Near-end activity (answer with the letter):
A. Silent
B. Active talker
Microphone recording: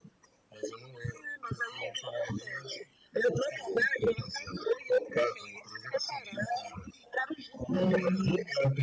B